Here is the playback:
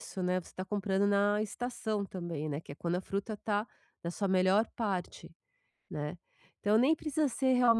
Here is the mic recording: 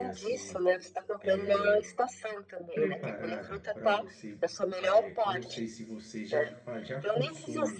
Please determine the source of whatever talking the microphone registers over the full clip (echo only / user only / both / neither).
both